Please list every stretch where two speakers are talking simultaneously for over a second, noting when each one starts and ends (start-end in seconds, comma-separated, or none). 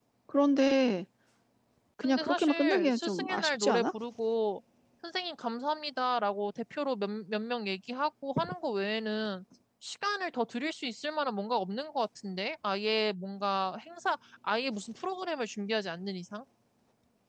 2.0-3.9